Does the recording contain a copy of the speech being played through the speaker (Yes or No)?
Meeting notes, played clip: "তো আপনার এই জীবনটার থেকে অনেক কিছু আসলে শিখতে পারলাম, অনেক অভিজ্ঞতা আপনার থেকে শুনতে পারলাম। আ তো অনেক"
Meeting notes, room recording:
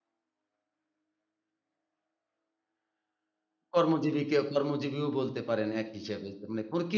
No